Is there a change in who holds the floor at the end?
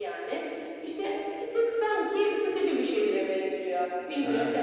Yes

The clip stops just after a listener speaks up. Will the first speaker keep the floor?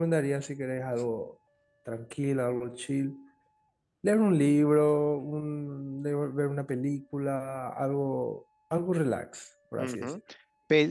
No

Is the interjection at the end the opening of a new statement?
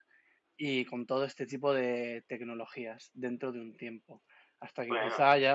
No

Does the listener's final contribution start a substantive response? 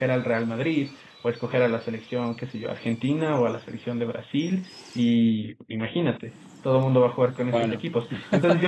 No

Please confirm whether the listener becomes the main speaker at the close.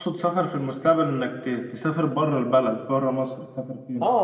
Yes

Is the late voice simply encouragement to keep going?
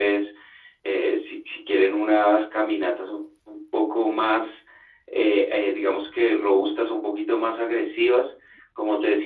Yes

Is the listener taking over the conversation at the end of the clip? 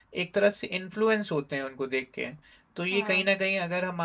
No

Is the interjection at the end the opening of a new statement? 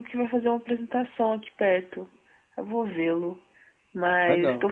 No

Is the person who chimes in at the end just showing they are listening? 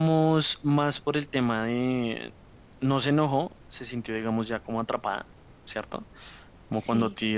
Yes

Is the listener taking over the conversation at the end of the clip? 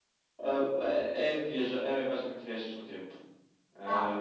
Yes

